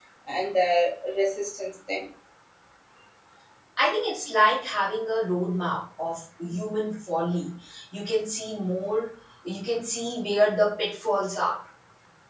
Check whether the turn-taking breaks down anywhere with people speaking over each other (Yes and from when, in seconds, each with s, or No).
No